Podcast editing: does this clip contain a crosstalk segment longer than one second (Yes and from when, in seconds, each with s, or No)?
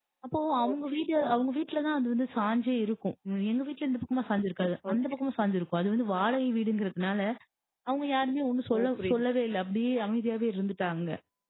No